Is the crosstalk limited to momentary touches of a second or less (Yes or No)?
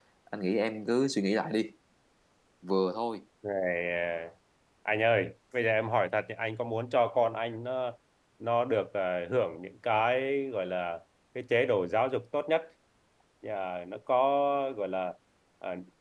Yes